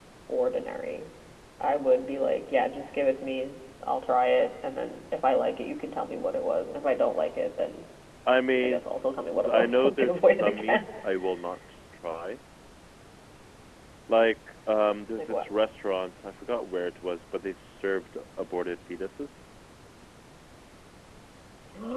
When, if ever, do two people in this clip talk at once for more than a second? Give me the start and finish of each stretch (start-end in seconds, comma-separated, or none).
9.5-10.8